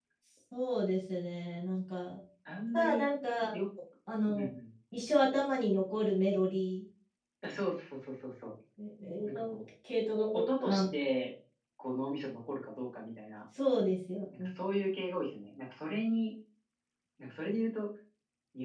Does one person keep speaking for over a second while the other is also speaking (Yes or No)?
No